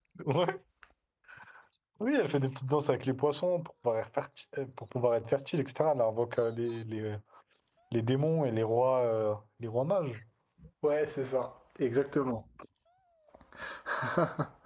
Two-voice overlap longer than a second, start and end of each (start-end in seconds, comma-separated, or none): none